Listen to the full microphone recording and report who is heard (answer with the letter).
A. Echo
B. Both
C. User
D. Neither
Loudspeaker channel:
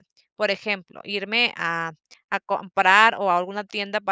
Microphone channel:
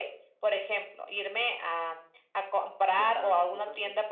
B